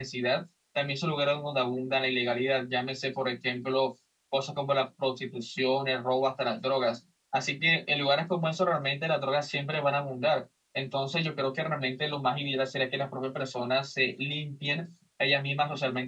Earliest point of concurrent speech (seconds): none

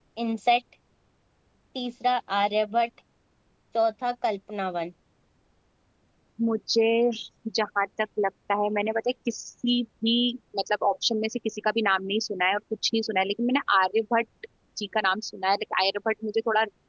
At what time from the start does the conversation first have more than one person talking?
none

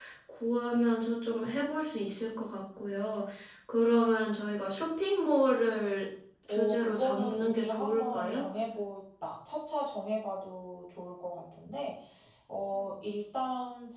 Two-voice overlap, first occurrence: 6.5 s

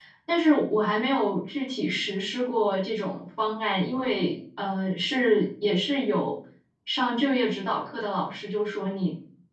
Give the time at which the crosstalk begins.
none

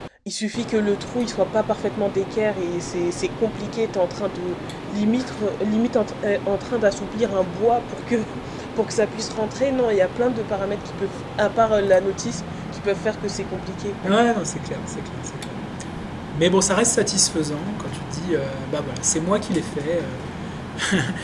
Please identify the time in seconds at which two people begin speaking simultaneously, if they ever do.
none

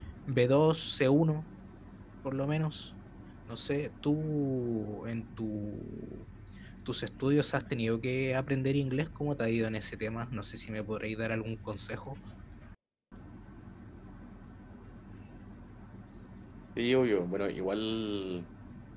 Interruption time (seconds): none

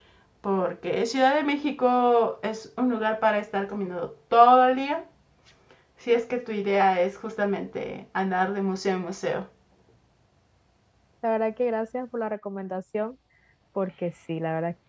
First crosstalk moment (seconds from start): none

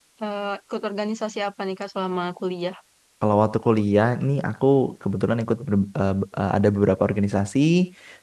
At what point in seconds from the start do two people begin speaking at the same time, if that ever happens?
none

